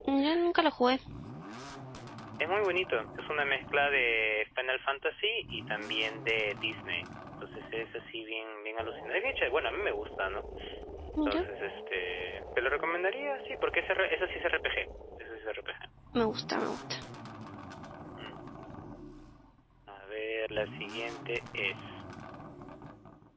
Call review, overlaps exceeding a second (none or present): none